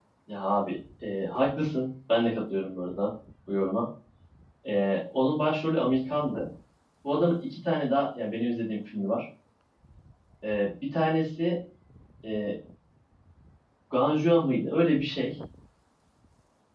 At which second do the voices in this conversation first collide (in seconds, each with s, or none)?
none